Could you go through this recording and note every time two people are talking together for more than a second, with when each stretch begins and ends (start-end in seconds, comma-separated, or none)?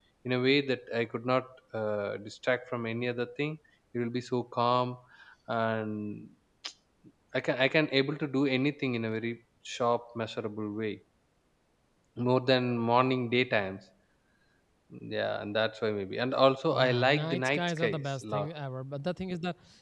16.7-18.5